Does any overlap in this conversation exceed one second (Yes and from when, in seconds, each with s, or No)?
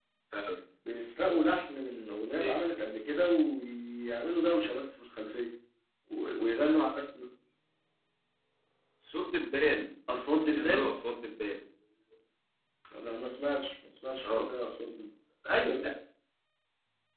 No